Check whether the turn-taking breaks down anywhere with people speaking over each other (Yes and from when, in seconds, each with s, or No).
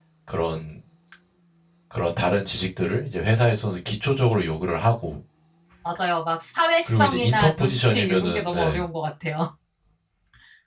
Yes, from 6.9 s